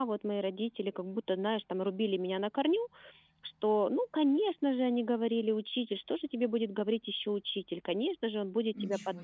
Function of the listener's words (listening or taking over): listening